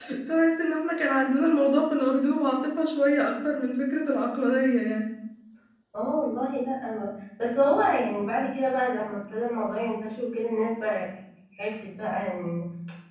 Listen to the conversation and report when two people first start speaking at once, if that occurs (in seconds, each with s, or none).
none